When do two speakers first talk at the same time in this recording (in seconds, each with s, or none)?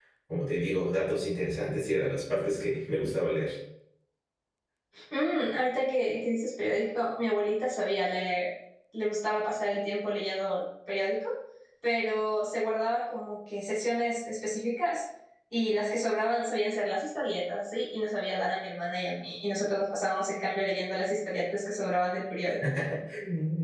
none